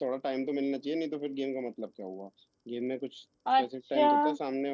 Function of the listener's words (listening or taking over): listening